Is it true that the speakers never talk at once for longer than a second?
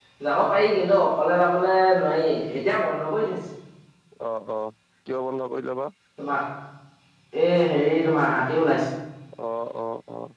Yes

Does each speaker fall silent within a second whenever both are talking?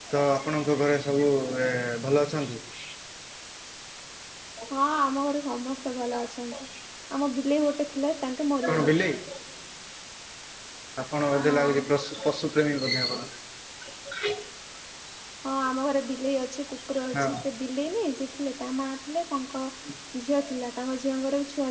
Yes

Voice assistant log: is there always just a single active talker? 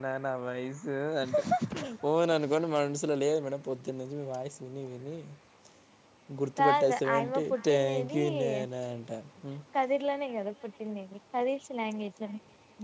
No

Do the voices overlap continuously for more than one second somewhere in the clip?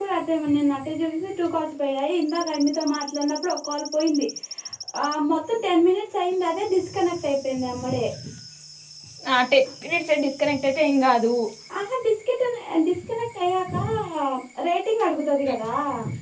No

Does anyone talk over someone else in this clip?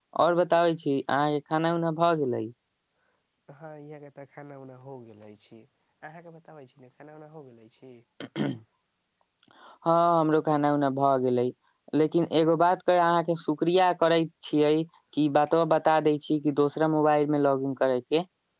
No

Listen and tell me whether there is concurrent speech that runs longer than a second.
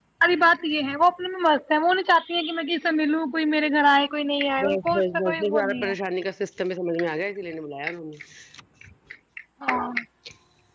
Yes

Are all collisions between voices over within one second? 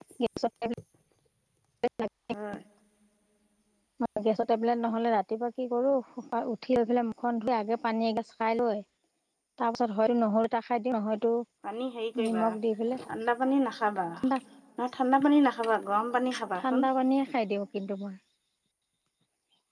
Yes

